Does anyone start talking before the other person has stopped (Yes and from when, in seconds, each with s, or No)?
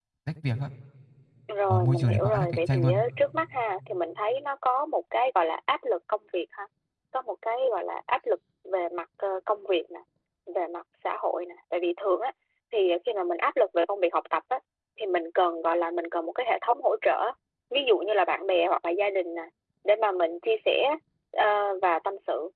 Yes, from 1.7 s